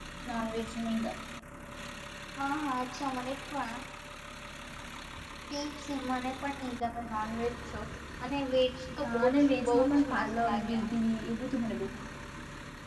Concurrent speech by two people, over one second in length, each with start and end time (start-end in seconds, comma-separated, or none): 9.0-10.8